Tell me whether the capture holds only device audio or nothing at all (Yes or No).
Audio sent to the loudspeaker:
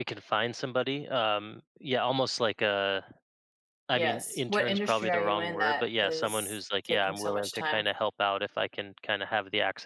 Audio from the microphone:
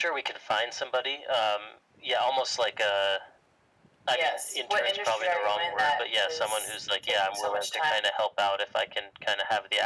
Yes